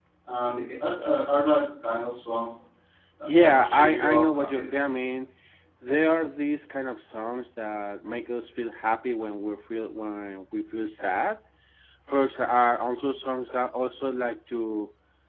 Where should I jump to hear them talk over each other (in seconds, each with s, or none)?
3.4 s